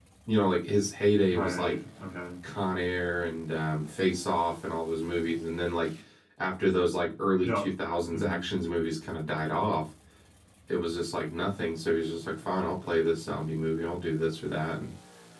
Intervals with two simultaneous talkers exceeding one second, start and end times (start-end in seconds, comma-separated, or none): none